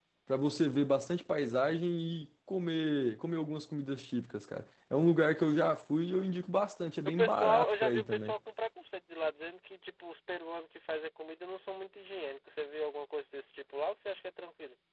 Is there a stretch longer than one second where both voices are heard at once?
Yes, from 7.0 s

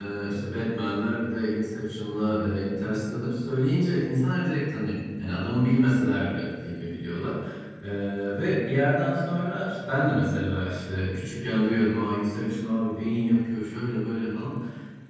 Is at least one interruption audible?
No

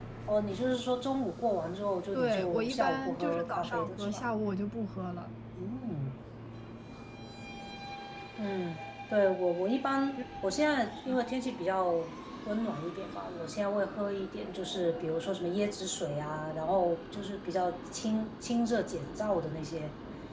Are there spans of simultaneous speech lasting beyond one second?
Yes, from 2.1 s

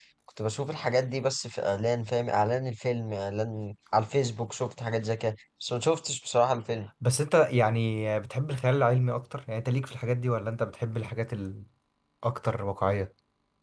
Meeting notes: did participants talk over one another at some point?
No

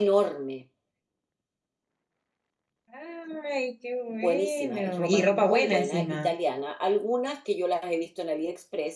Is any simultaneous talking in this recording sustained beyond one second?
Yes, from 4.1 s

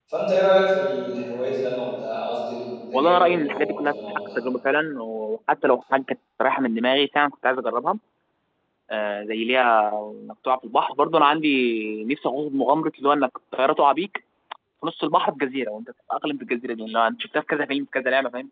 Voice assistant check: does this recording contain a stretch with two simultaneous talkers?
Yes, from 2.9 s

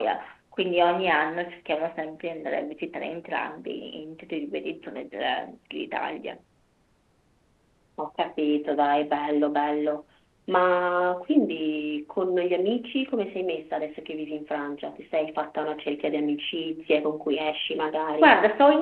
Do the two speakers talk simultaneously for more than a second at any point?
No

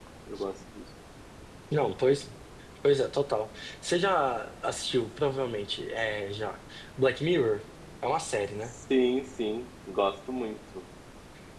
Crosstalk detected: No

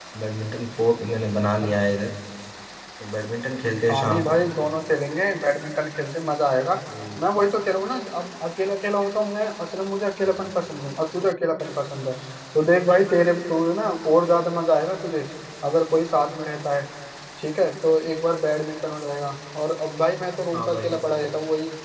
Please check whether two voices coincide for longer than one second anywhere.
No

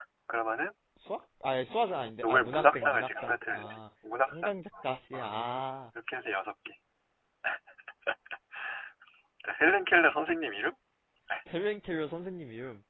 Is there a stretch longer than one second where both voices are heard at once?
Yes, from 2.2 s

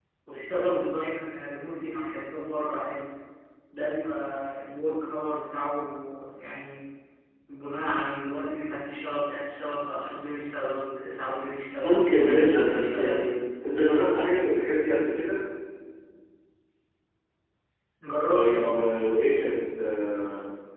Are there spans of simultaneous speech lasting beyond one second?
Yes, from 11.8 s

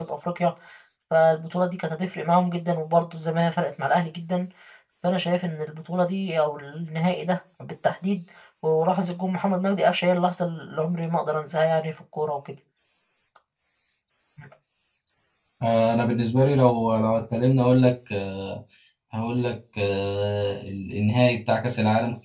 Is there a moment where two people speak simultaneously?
No

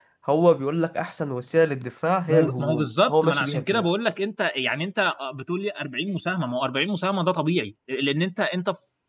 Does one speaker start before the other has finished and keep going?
Yes, from 2.3 s

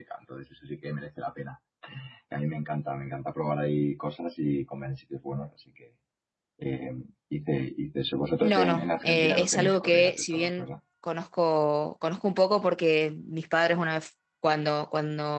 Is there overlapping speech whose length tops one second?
Yes, from 8.4 s

